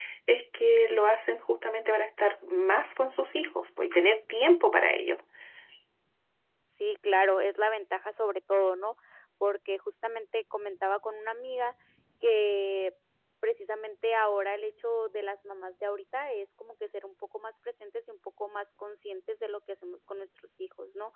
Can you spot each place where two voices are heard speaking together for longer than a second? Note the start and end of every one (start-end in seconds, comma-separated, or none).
none